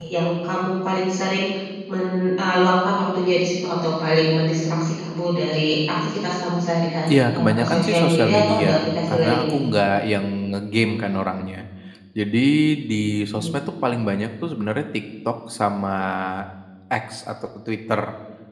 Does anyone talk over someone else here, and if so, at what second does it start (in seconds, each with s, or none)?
7.1 s